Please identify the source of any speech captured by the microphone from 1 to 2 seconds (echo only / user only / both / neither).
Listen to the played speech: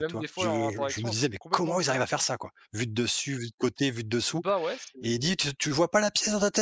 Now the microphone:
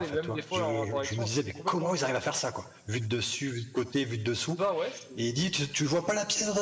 echo only